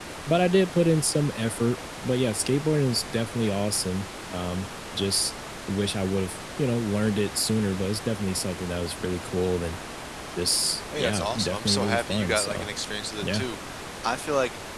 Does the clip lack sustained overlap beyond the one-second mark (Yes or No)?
No